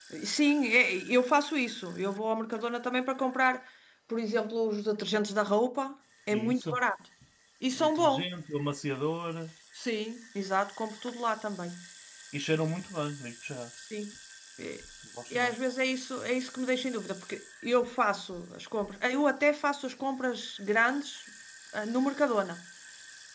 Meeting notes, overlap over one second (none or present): none